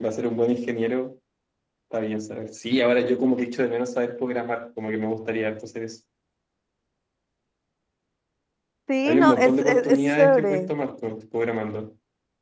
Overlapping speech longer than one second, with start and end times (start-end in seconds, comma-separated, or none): 9.1-10.7